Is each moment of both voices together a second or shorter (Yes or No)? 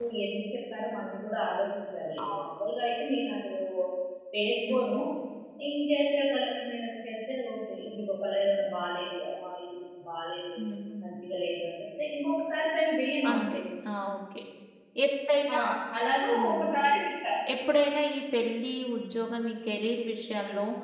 Yes